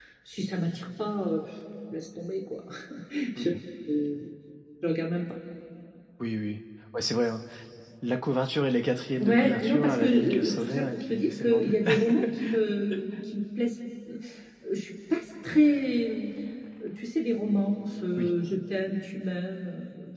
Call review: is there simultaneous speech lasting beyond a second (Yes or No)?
Yes